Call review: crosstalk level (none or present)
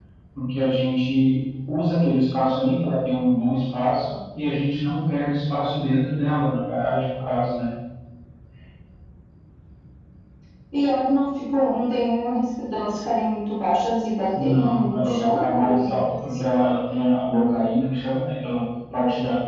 present